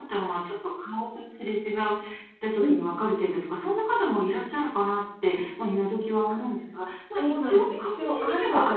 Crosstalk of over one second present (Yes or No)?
Yes